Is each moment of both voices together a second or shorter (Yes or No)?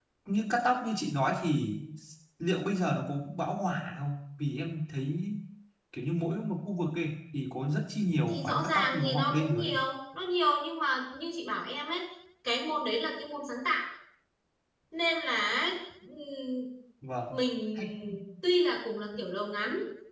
No